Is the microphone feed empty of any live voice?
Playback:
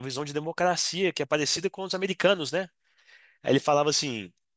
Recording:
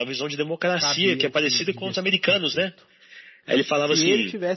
No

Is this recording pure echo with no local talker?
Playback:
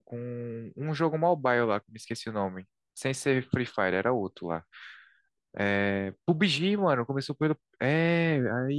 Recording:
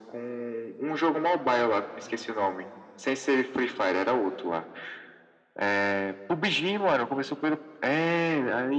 Yes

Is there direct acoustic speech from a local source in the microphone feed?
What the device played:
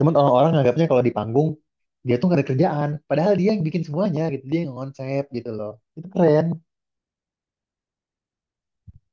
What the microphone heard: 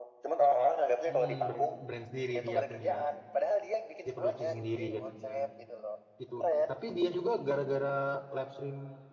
Yes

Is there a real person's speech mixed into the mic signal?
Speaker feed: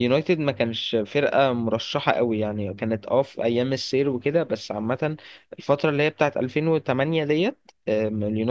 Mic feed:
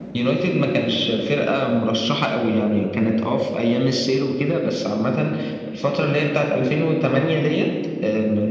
No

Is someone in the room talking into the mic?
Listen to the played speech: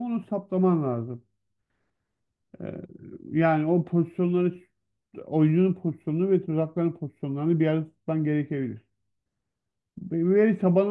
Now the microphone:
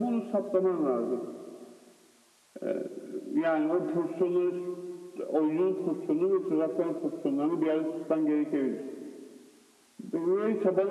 No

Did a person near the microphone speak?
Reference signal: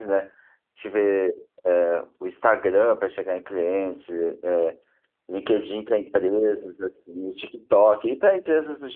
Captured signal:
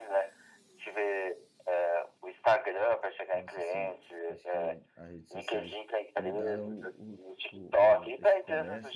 Yes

